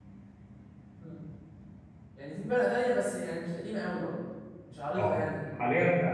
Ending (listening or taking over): taking over